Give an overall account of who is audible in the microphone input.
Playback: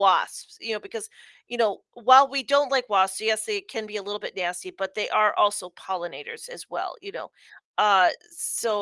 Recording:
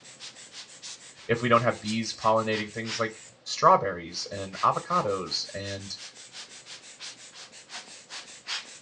user only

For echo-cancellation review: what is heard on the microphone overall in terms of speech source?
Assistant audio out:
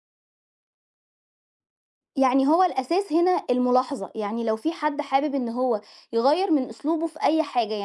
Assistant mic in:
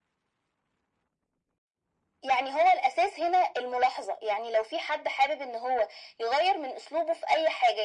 echo only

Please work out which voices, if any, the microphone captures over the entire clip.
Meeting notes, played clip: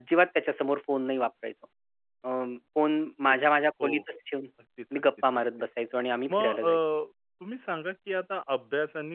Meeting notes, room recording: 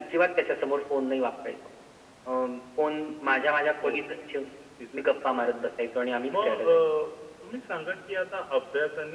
echo only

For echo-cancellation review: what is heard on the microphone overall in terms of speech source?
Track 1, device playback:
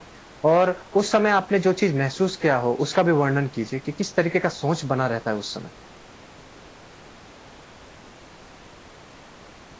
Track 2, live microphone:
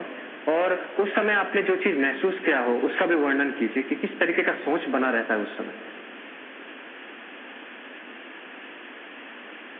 echo only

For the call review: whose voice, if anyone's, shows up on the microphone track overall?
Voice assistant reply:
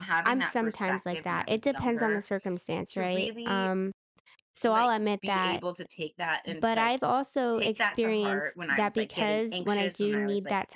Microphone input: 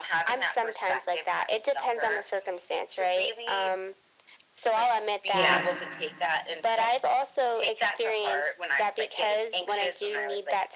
both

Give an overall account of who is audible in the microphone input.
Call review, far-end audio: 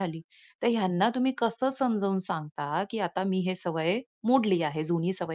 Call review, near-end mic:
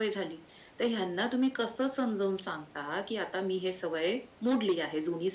echo only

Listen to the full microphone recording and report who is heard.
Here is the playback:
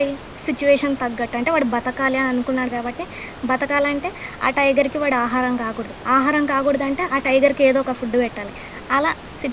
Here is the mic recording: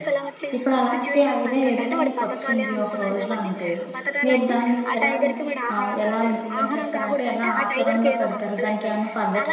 both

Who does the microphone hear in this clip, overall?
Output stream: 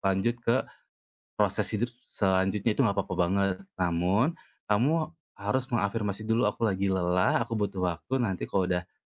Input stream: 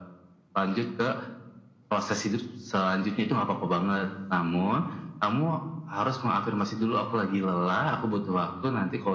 echo only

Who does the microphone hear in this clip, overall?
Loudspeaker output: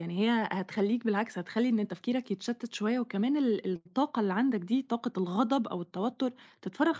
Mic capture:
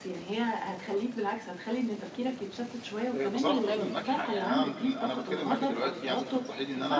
both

